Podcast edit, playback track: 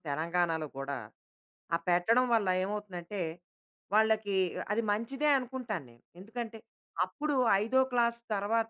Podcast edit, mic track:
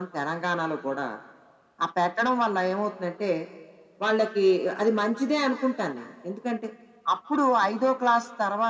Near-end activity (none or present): none